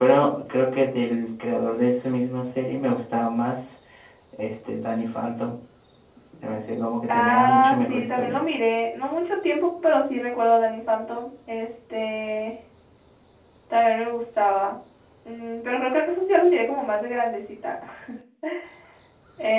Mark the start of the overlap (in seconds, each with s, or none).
7.1 s